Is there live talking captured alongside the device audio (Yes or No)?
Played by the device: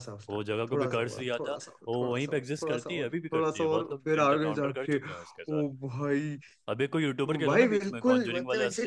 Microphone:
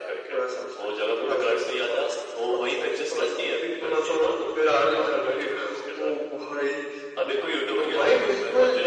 No